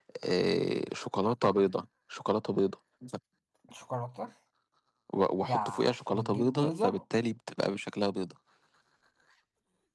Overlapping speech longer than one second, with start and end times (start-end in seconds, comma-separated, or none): 5.5-7.0